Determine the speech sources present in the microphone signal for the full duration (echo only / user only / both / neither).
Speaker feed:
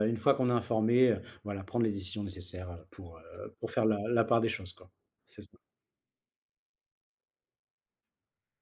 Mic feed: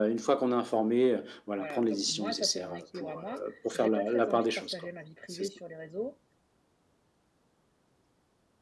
both